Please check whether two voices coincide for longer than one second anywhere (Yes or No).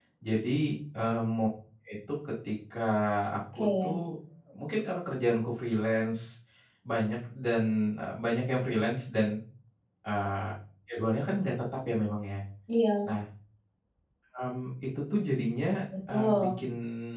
No